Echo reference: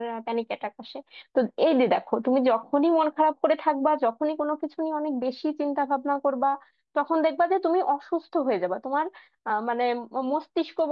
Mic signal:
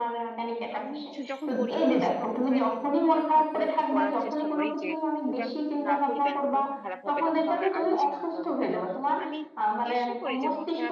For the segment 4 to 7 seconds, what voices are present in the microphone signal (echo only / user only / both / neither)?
both